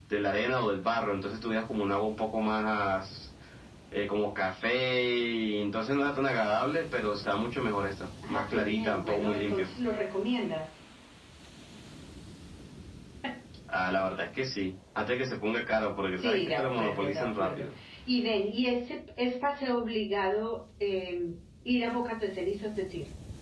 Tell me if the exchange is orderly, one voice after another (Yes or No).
No